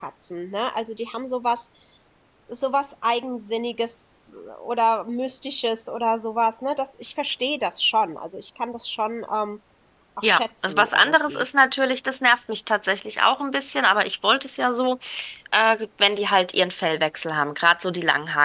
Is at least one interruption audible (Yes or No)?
Yes